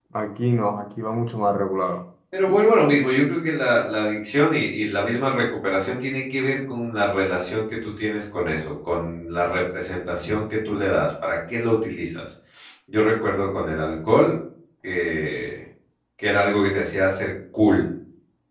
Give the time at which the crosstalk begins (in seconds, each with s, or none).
none